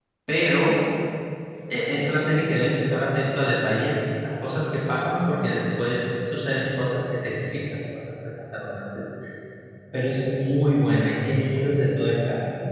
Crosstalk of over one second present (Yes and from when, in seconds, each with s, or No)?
No